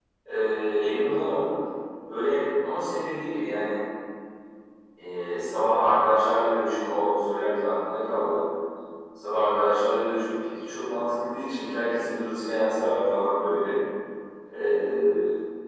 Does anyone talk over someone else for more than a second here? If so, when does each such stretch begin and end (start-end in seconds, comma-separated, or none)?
none